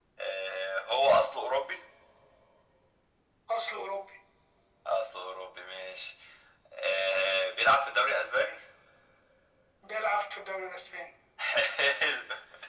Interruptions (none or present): none